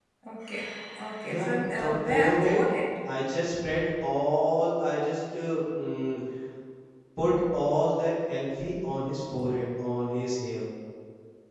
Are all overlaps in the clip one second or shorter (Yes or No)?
No